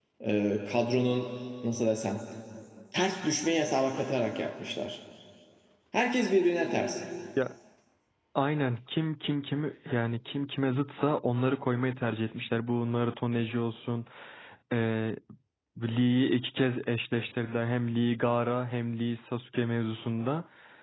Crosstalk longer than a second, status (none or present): none